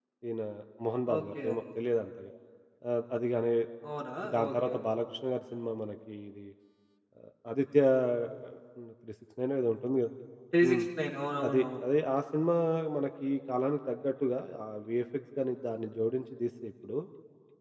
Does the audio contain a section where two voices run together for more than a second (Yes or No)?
No